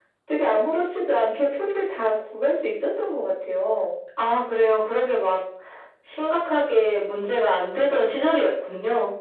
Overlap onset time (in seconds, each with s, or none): none